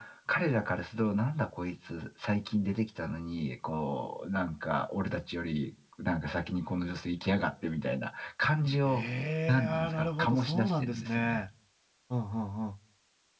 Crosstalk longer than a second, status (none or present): present